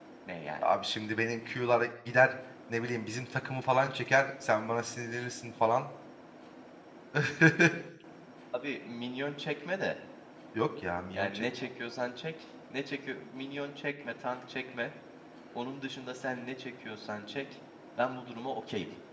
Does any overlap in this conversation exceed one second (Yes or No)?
No